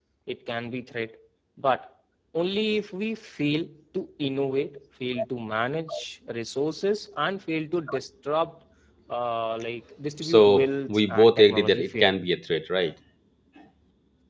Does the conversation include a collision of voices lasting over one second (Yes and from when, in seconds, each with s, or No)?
Yes, from 10.2 s